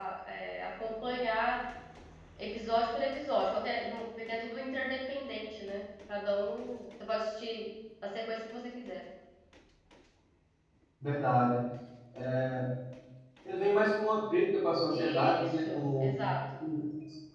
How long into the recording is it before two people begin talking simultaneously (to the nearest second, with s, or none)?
15 s